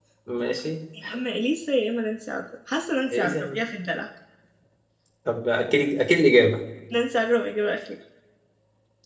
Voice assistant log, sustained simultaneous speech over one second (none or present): none